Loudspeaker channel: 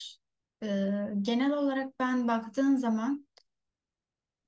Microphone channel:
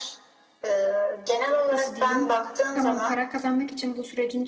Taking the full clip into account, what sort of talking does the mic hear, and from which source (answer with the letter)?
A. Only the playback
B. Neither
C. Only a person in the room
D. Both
D